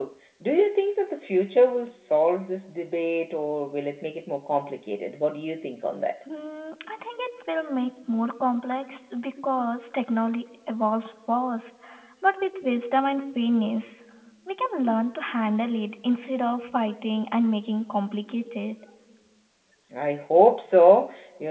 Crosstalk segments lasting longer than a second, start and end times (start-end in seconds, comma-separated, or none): none